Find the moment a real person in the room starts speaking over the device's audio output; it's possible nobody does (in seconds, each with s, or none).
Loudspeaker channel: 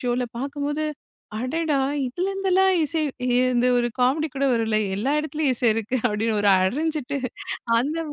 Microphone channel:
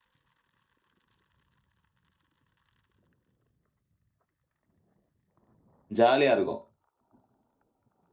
6.0 s